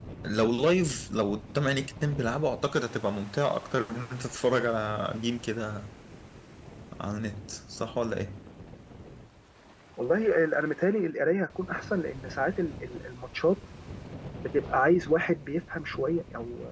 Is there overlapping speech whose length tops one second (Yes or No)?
No